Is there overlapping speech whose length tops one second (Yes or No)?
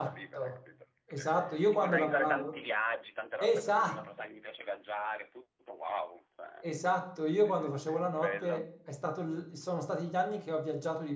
Yes